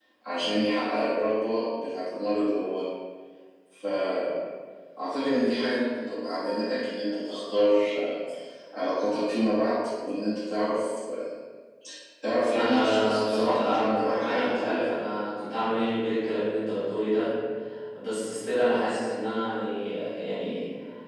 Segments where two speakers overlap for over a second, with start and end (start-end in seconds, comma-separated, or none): 12.5-14.9